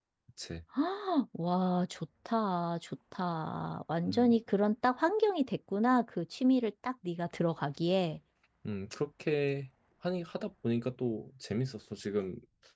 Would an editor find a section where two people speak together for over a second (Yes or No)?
No